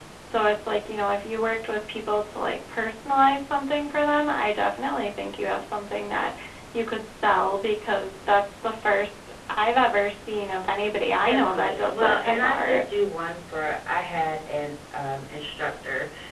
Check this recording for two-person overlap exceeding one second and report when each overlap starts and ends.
11.2-12.8

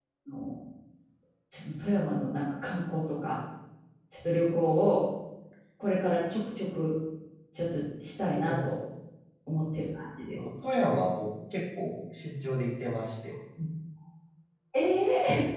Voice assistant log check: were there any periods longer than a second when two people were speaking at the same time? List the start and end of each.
none

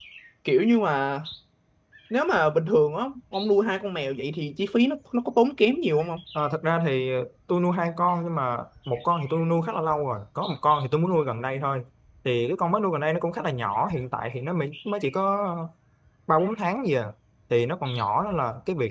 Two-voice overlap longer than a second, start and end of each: none

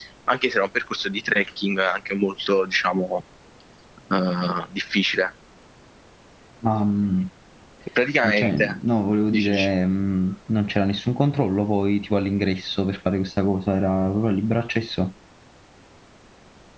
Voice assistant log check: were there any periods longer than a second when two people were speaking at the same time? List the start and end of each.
none

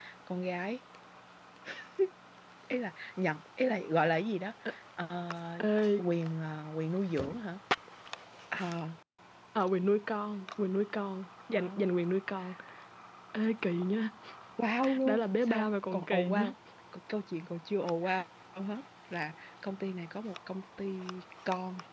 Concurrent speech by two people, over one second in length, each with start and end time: 15.0-16.4

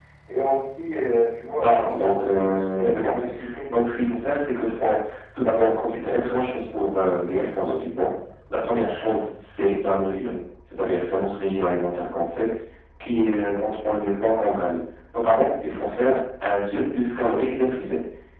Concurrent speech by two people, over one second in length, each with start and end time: 1.5-3.3

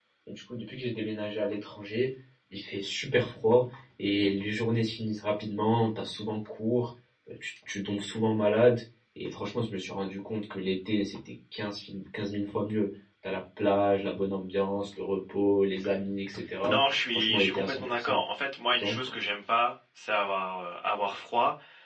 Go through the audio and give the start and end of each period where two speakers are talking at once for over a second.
16.6-18.2

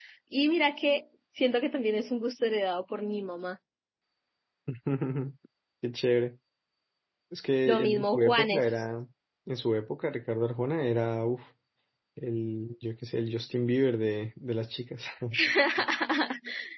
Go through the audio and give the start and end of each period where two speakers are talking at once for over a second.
7.6-8.8

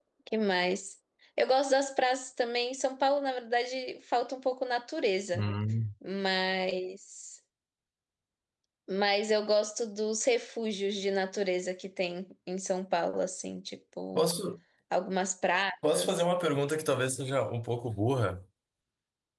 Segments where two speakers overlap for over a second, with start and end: none

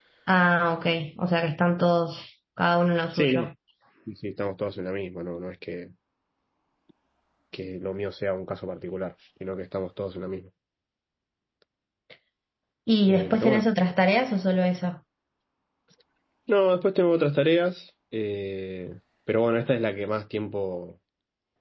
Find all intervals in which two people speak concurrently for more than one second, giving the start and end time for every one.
none

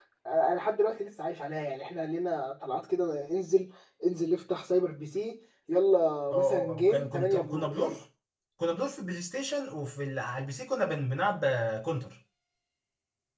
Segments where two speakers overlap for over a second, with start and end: 6.3-7.9

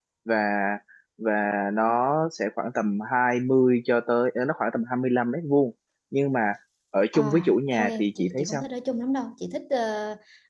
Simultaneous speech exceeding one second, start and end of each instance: 7.1-8.6

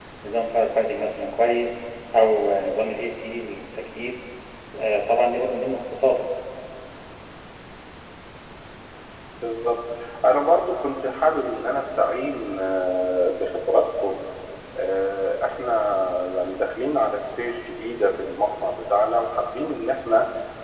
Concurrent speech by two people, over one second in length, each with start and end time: none

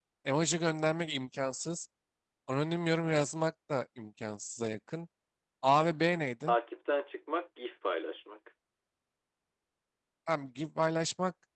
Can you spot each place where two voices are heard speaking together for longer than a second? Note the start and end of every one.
none

